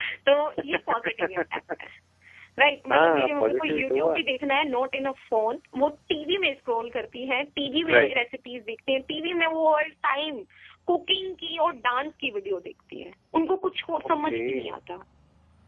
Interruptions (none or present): present